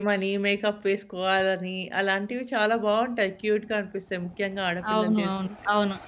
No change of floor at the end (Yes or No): No